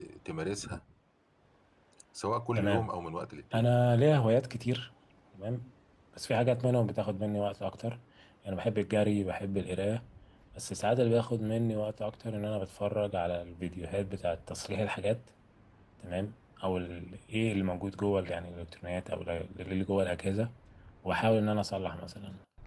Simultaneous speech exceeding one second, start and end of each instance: none

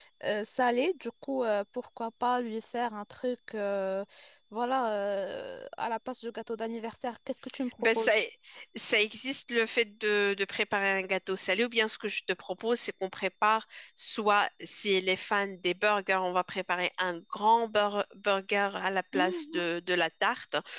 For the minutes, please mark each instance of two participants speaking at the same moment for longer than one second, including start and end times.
none

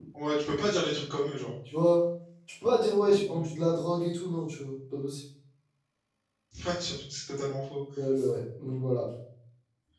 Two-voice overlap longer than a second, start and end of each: none

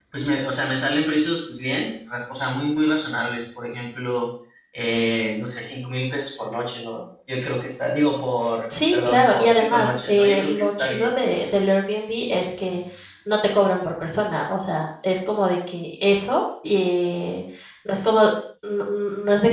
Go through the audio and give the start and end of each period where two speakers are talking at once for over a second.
8.9-11.1

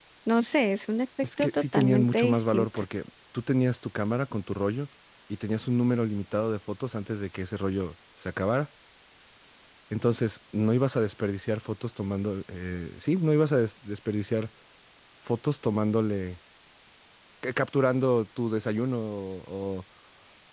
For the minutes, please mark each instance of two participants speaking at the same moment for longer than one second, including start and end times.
1.4-2.8

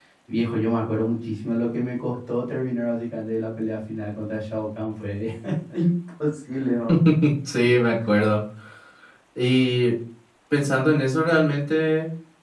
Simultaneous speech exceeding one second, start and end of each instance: none

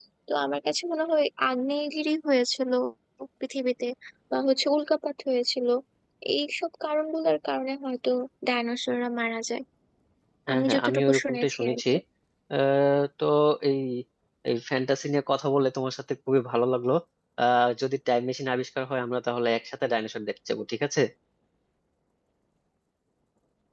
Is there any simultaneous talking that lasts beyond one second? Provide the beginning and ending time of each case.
10.5-11.8

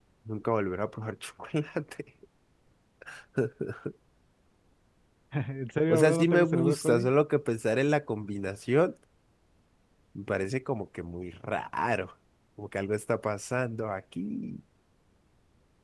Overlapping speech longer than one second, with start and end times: 5.9-7.1

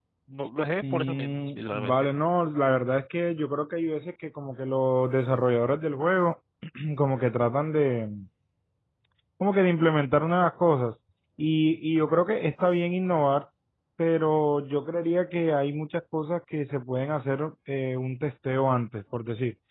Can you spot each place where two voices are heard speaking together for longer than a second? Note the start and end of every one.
0.8-2.1

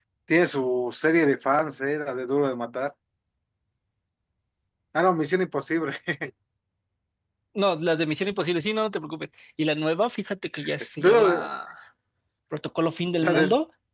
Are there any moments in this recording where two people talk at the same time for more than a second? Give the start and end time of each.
none

